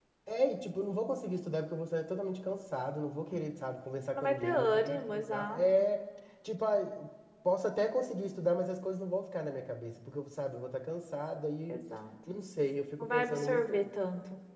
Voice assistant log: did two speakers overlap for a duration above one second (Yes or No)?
Yes